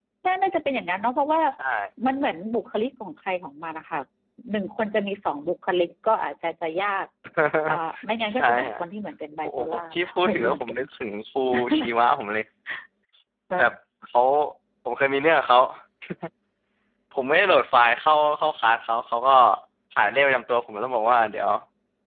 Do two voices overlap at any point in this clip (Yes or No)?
Yes